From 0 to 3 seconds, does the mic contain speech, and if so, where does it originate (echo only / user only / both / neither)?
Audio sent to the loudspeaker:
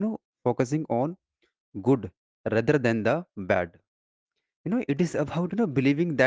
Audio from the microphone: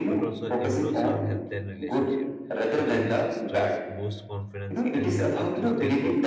both